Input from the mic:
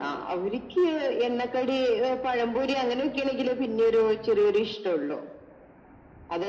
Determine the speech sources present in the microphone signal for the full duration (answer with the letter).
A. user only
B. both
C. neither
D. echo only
D